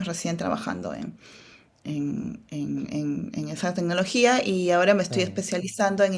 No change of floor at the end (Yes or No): Yes